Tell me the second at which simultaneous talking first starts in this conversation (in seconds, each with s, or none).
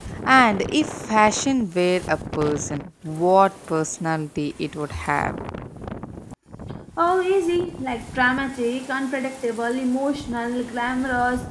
none